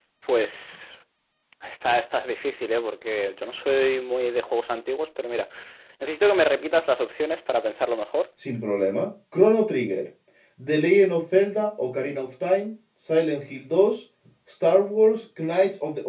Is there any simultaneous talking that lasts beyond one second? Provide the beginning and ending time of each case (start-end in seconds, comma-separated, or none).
none